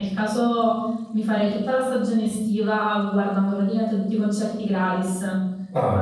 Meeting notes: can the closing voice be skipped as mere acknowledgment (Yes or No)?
Yes